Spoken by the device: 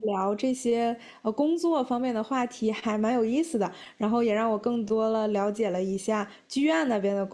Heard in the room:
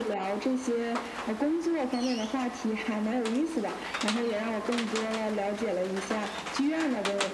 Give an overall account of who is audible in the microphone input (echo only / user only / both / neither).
echo only